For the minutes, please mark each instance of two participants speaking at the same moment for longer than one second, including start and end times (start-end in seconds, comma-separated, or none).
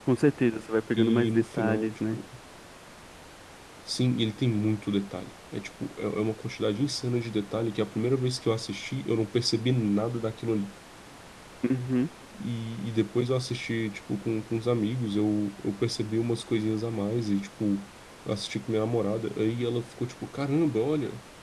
1.0-2.2